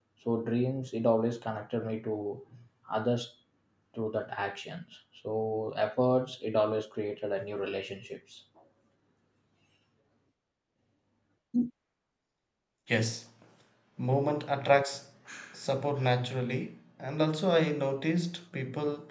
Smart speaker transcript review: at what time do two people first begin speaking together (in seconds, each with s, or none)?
none